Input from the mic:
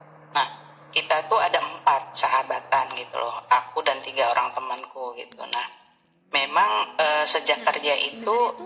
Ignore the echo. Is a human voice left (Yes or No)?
Yes